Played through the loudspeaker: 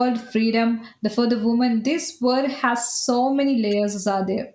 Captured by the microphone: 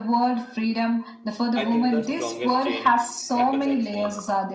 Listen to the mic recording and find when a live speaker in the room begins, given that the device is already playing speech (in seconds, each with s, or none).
1.6 s